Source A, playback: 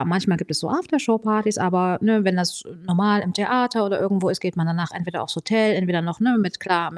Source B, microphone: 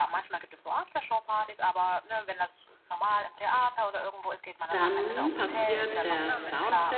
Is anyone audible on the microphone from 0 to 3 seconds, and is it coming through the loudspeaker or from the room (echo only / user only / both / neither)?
echo only